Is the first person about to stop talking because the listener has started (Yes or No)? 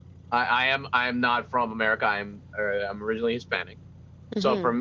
No